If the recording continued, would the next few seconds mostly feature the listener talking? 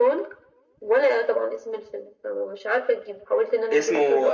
Yes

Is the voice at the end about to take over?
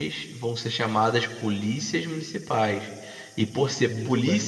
No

